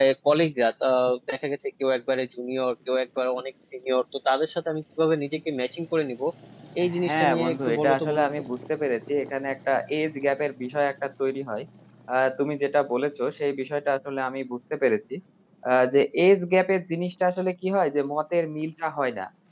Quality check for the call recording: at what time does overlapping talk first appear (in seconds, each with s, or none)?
7.0 s